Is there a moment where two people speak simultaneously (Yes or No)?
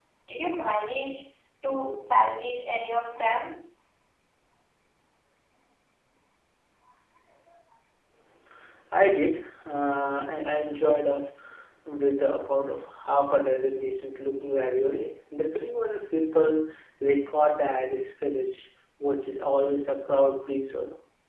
No